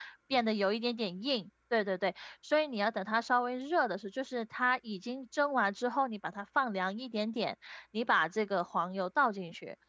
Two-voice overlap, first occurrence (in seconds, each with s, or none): none